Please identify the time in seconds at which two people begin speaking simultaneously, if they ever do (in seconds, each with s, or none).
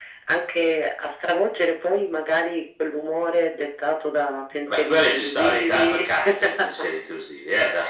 4.7 s